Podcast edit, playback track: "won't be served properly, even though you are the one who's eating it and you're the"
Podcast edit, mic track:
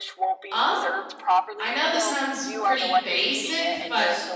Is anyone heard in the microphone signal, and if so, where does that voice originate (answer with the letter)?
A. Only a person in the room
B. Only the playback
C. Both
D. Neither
C